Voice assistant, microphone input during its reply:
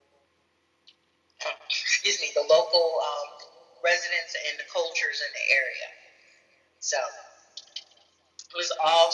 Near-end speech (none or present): none